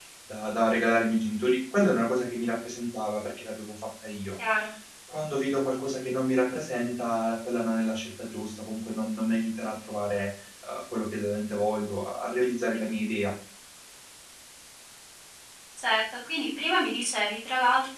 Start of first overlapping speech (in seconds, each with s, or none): none